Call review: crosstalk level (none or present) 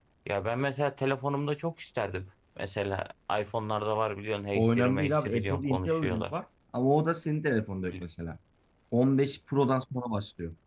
present